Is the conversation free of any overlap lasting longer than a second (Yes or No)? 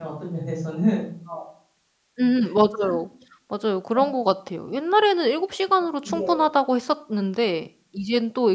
Yes